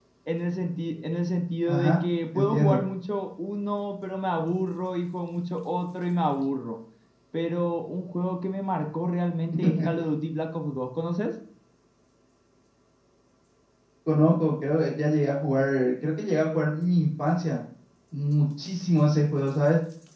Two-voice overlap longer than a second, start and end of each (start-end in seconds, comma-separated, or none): none